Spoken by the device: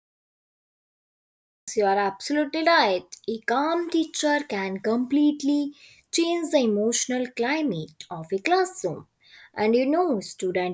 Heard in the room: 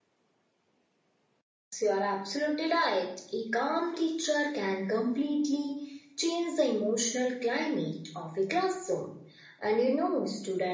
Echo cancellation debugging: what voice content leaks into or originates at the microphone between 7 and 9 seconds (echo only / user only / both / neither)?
echo only